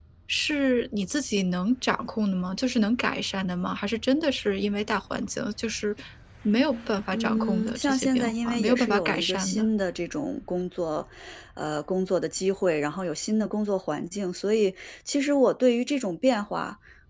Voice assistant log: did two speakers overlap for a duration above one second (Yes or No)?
Yes